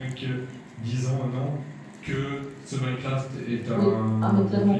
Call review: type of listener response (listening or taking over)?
taking over